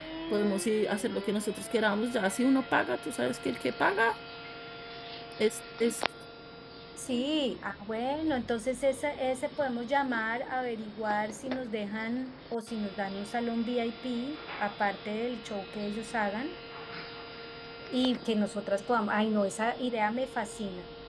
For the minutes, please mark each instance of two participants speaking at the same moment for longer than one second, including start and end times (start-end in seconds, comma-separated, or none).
none